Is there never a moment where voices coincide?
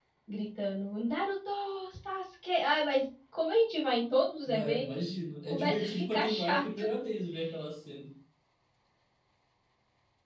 No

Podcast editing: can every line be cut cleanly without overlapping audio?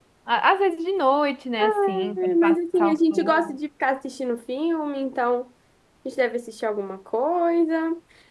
No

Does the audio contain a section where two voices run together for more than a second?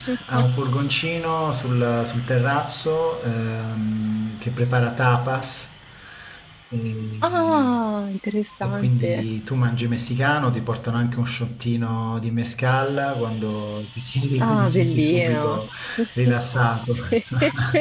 Yes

